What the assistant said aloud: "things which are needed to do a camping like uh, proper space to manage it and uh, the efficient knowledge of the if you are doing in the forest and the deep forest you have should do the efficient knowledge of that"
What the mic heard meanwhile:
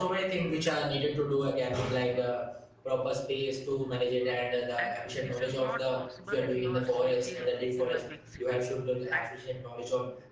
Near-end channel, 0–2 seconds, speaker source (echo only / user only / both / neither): echo only